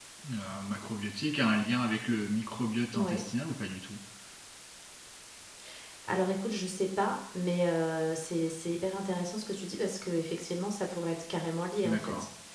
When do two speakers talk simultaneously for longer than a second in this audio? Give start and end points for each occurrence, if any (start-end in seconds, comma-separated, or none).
none